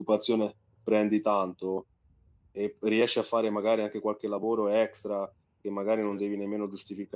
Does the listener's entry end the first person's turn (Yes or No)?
No